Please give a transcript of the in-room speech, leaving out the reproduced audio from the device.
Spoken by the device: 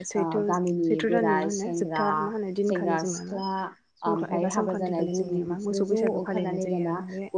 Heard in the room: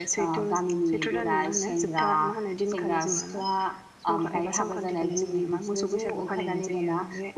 none

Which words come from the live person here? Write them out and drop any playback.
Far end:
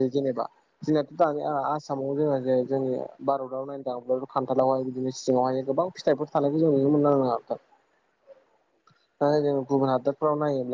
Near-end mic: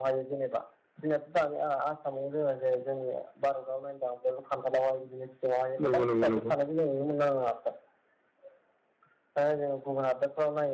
नंगौ नंगौ नंगौ

